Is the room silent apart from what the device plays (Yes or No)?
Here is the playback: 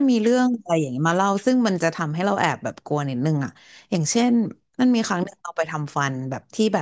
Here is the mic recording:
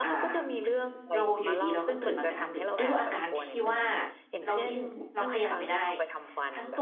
No